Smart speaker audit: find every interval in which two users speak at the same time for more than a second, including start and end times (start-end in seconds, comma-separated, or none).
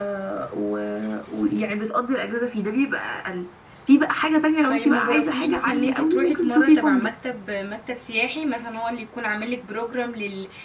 4.7-7.1